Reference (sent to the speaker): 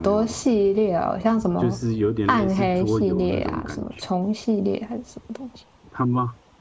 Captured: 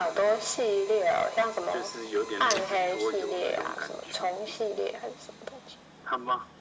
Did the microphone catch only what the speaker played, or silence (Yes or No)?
Yes